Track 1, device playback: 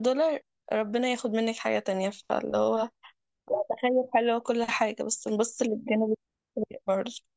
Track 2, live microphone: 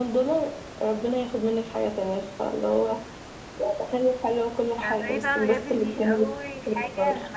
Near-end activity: present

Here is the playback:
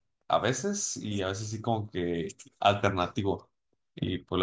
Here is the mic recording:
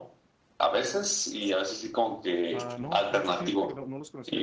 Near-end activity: present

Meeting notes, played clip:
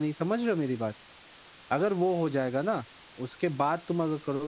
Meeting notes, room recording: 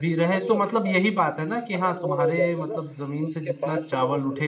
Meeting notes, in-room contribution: present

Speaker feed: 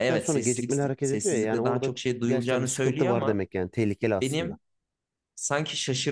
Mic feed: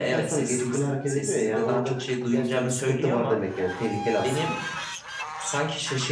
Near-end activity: none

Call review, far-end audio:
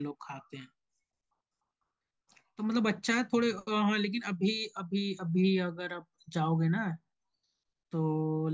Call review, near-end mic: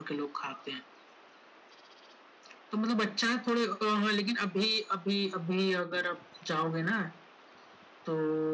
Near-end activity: none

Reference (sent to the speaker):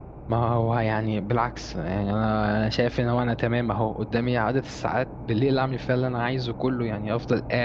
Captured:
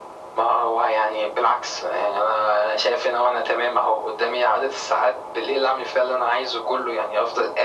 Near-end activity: none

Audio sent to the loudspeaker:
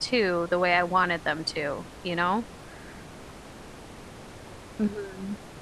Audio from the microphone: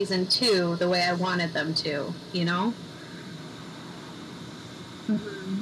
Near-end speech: none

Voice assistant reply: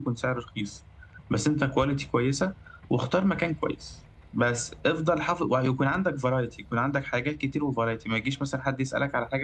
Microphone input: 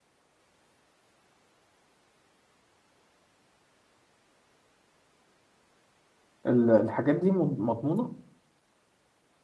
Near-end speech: present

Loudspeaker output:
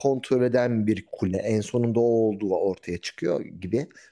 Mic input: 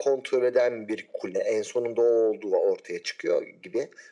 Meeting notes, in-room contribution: none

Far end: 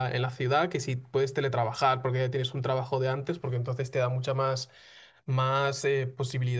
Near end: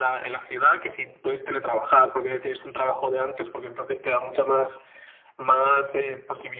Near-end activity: none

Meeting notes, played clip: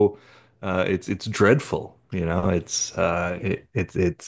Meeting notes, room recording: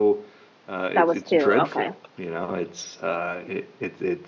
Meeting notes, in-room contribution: present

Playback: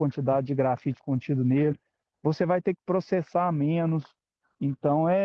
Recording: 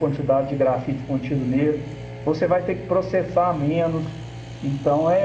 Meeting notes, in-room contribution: none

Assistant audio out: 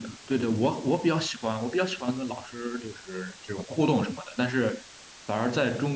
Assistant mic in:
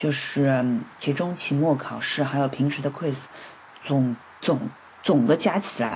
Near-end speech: present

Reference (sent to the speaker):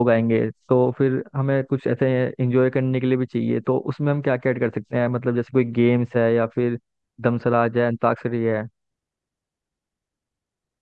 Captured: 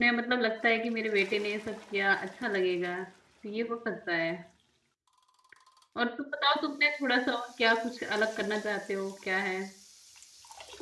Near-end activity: present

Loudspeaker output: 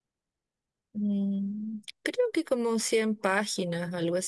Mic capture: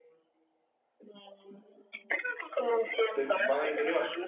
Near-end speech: present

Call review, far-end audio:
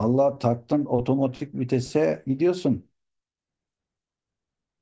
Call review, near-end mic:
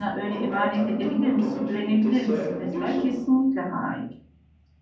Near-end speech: present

